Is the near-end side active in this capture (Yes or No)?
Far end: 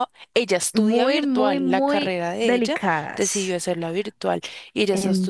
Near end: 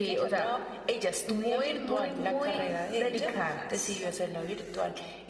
Yes